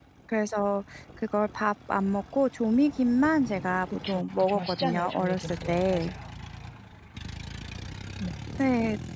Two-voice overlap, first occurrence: 4.0 s

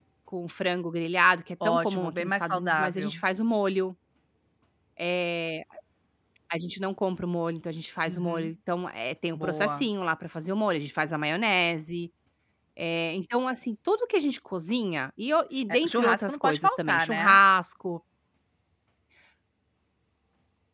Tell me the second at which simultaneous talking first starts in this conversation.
1.6 s

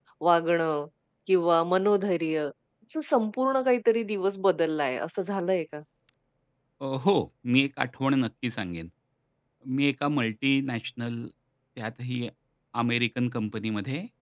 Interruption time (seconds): none

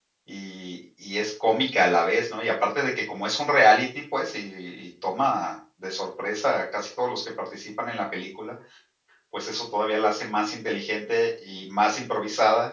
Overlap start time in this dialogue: none

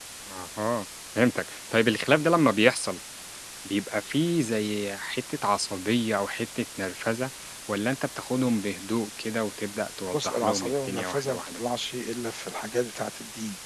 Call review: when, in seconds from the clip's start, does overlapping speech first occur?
10.1 s

